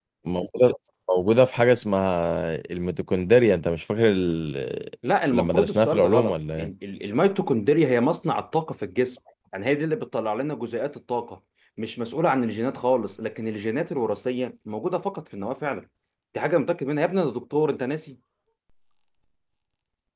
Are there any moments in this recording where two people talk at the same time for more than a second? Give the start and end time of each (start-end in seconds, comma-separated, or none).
5.3-6.7